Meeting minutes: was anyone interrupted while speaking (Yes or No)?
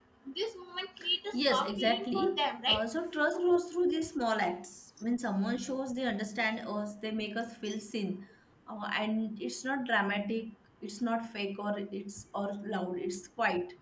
Yes